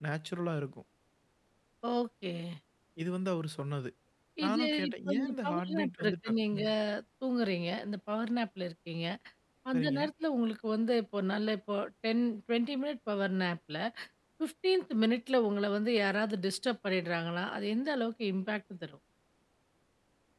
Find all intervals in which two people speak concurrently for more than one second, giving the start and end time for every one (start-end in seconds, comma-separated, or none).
4.4-6.6